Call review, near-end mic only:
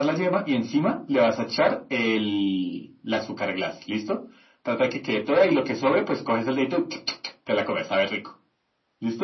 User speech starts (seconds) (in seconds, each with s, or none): none